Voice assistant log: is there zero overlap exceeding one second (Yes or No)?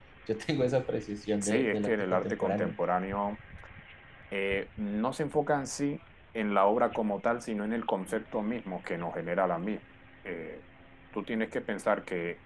No